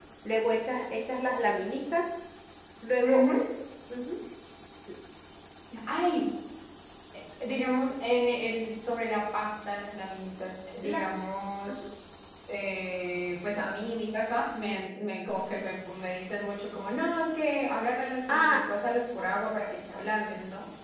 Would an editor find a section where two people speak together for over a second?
No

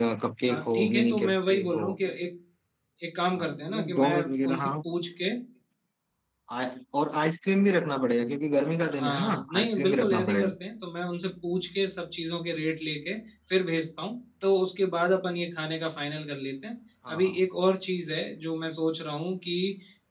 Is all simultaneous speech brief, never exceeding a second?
No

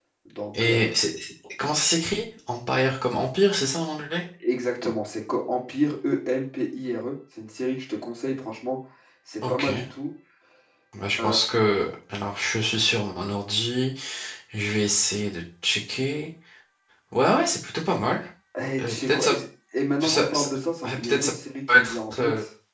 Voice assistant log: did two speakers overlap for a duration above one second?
Yes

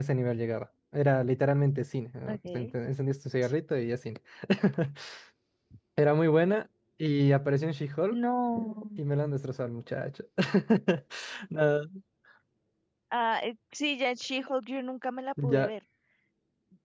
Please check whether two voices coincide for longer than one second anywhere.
No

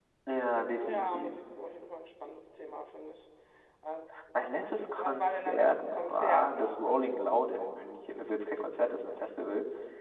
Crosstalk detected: Yes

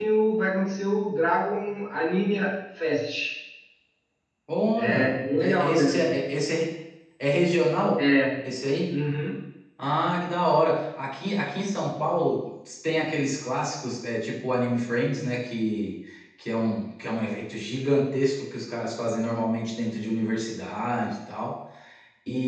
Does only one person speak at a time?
No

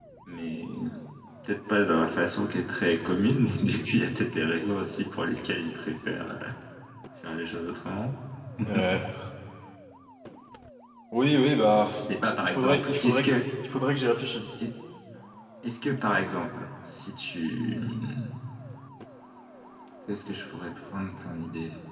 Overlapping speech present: Yes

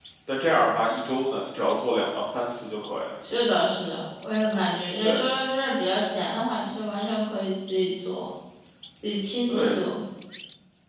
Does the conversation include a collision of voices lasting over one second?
No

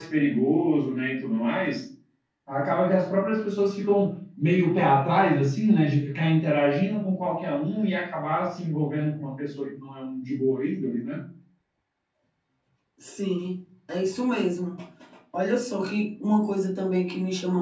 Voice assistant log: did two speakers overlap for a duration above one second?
No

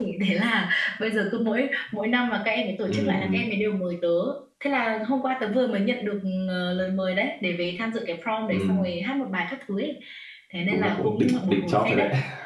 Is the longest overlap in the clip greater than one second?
Yes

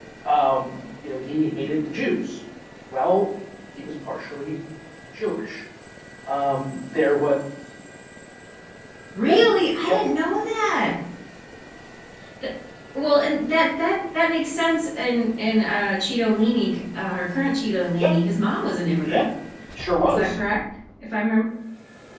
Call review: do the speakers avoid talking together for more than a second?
Yes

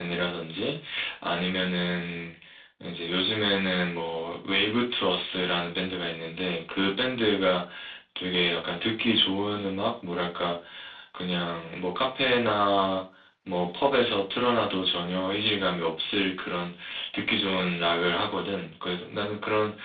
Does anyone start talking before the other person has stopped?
No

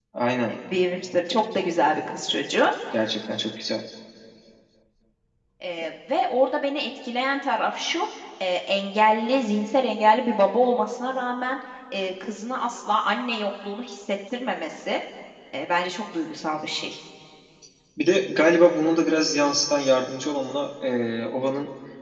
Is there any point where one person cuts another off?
No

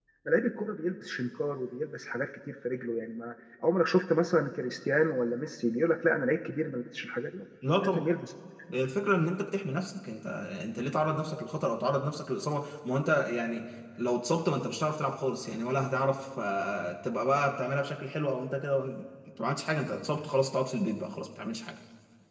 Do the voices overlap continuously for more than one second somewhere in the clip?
No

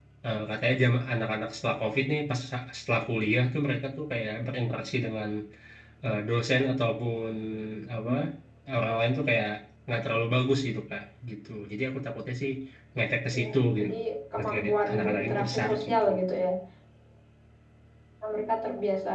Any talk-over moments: Yes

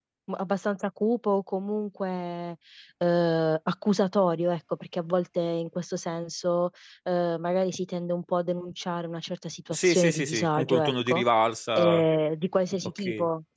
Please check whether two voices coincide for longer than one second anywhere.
Yes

